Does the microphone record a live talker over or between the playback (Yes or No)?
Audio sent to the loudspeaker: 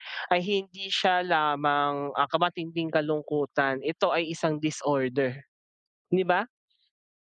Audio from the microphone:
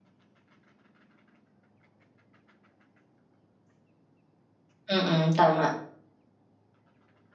Yes